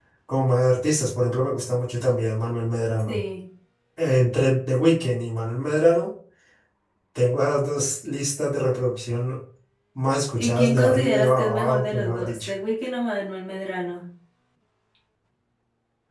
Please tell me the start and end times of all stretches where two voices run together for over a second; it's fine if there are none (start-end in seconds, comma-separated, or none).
10.4-12.5